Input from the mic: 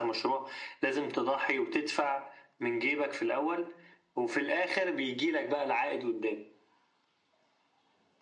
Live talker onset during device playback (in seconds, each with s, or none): none